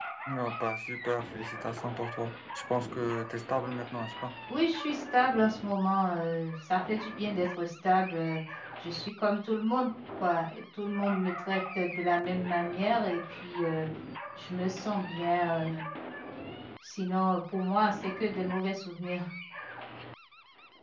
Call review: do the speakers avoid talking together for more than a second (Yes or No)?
Yes